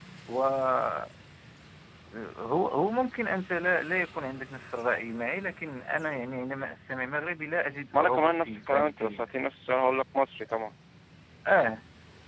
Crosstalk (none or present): present